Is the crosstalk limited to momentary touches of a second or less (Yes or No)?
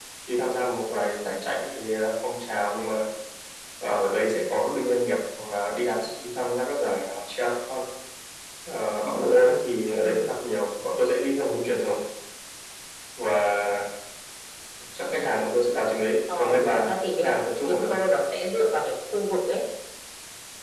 No